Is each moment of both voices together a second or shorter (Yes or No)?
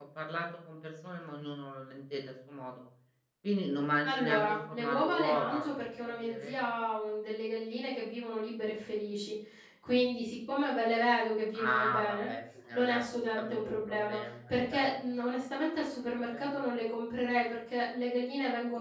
No